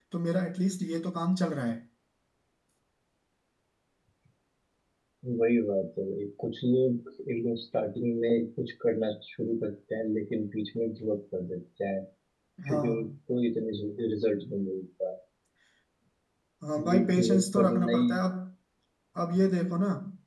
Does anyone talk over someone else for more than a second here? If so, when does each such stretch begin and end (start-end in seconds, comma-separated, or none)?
16.9-18.1